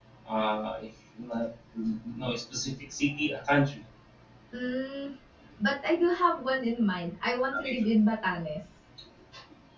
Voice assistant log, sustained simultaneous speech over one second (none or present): none